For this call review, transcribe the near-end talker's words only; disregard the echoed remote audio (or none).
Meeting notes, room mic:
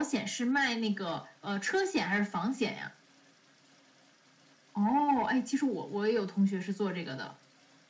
none